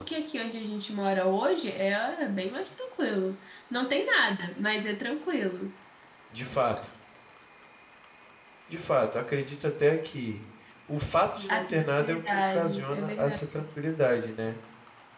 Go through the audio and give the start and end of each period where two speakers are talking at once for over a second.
11.5-13.4

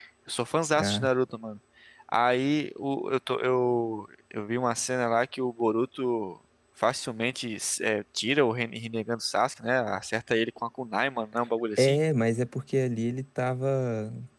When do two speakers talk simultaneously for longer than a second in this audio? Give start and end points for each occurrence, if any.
none

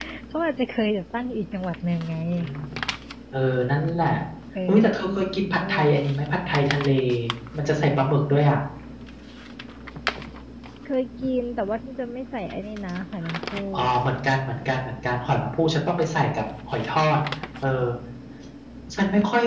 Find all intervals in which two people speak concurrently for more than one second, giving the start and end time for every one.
none

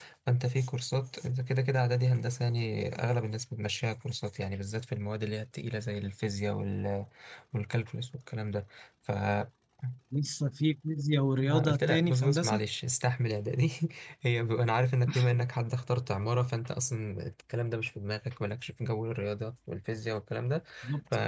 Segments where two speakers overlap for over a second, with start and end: 11.4-12.6

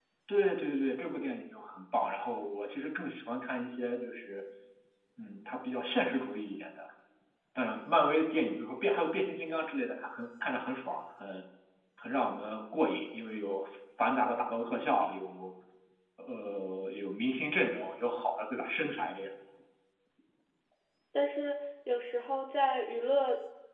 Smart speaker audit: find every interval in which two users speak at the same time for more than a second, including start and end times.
none

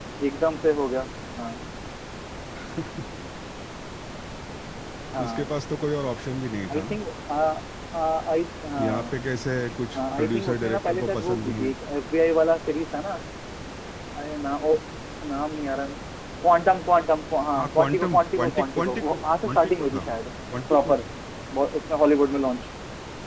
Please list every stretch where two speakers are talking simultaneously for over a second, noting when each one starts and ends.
10.0-11.7, 17.6-20.0

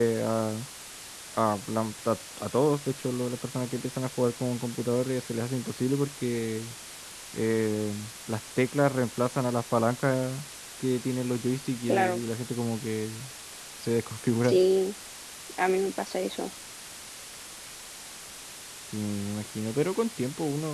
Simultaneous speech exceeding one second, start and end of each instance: none

